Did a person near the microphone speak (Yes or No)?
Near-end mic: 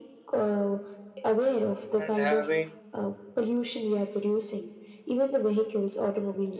Yes